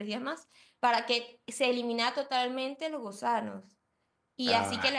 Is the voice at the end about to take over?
No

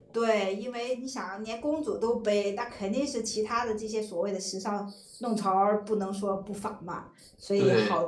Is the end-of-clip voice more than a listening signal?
No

